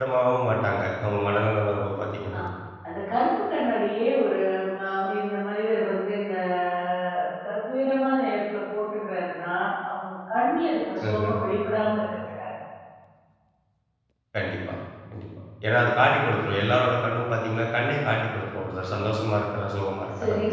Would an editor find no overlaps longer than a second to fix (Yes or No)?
Yes